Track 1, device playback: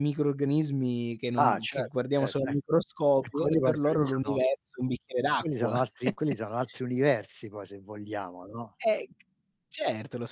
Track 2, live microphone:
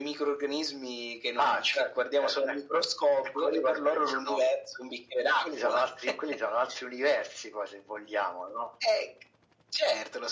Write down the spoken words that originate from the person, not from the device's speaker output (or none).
none